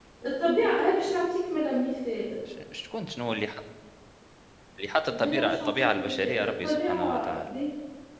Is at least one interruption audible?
Yes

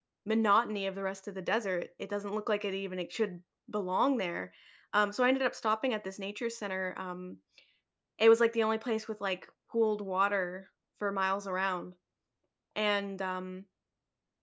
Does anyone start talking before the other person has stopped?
No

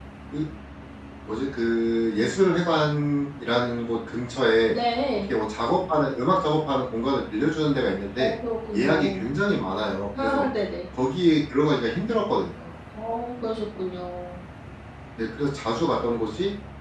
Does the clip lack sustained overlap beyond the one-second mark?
Yes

